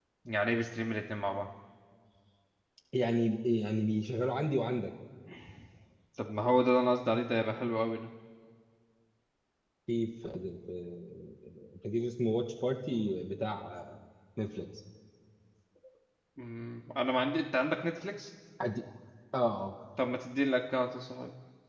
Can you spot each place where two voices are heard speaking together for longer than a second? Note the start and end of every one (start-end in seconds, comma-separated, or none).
none